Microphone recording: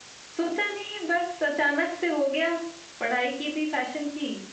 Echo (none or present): none